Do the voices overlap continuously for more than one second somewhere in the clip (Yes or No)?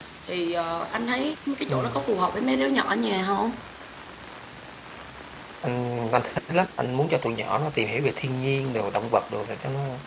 No